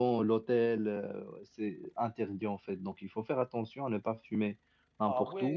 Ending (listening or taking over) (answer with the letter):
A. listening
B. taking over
B